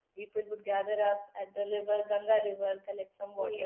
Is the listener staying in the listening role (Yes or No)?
Yes